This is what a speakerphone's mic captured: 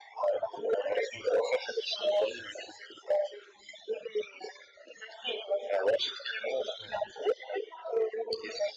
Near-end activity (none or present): none